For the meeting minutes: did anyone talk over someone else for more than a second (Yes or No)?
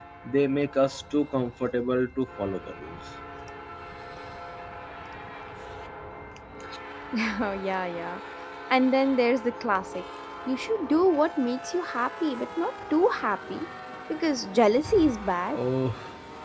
No